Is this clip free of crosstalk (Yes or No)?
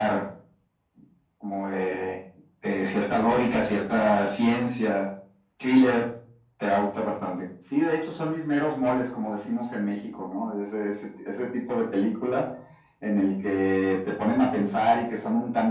Yes